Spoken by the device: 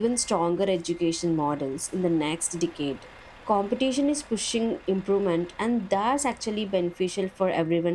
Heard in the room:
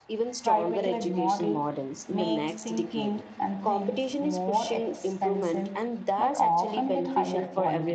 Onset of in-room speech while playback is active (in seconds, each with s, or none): 0.4 s